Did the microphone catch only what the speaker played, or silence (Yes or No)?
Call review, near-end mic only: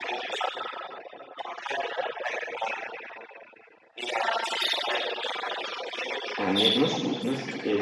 No